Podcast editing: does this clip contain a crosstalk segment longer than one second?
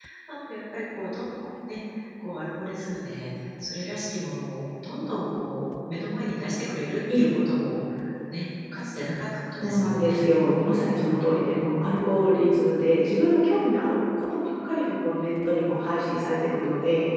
Yes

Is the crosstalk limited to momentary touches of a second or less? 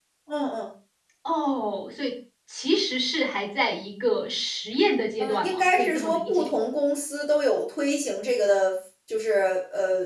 No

